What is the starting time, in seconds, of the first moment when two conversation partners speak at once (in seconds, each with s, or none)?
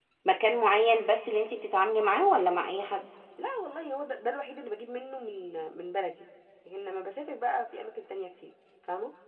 none